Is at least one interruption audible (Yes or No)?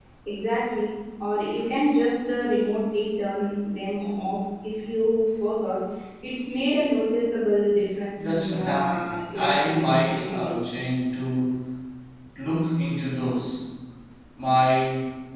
Yes